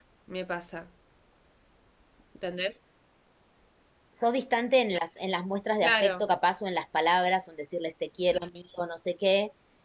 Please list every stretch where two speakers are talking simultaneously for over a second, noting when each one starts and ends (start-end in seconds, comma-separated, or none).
none